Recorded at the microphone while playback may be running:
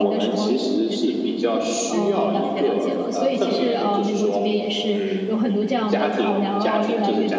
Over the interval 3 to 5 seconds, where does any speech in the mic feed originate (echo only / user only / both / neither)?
both